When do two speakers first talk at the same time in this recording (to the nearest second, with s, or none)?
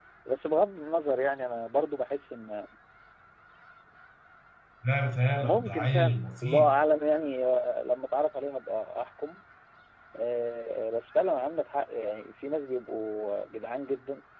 5 s